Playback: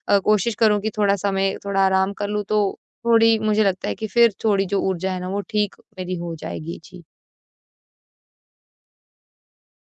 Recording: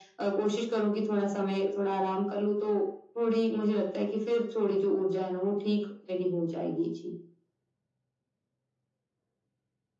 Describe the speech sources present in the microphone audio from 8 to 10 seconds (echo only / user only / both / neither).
neither